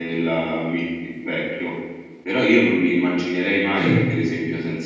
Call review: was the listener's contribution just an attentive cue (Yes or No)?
Yes